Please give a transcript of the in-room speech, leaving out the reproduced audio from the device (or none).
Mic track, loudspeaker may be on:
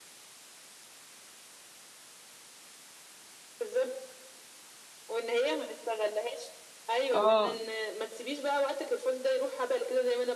اه